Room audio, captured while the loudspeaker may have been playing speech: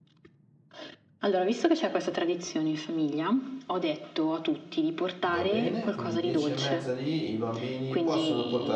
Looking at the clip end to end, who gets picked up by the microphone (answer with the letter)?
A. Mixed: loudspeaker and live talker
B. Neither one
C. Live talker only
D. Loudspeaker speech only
A